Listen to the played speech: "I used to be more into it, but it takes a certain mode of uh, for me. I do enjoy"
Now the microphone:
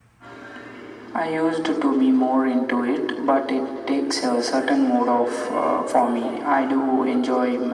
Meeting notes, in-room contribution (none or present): none